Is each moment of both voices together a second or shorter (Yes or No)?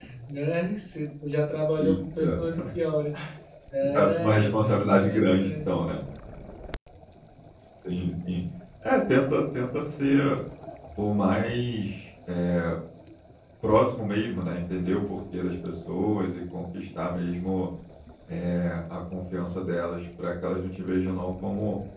No